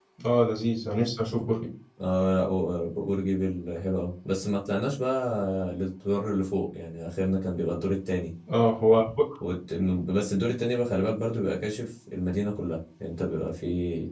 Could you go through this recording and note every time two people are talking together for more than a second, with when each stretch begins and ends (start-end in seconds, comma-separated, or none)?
none